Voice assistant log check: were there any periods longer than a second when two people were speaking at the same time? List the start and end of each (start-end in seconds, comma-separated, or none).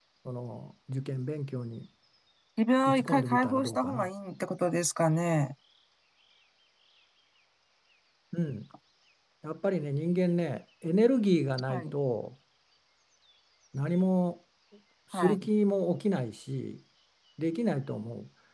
2.9-4.1